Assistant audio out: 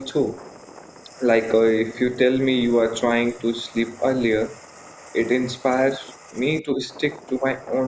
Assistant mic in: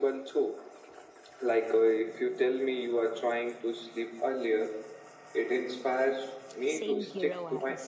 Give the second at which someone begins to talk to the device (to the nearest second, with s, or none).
6 s